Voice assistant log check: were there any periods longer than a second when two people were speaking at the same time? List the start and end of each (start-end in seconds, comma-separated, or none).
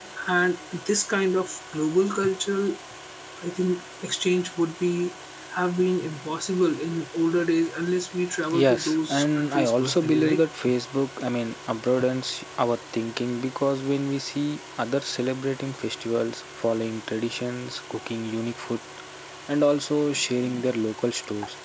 8.5-10.4